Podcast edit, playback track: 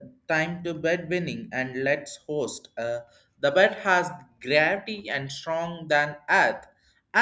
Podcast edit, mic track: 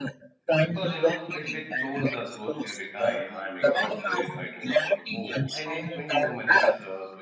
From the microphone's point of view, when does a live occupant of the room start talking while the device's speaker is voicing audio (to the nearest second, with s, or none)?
1 s